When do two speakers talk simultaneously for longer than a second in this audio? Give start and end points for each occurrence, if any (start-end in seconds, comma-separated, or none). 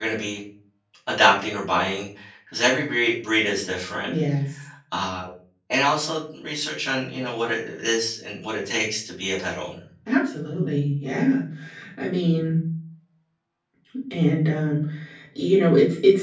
none